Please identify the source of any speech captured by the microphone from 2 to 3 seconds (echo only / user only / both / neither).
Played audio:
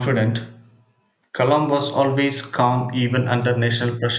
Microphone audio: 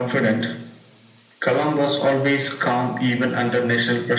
echo only